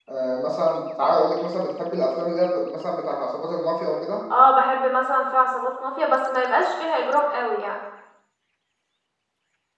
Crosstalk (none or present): none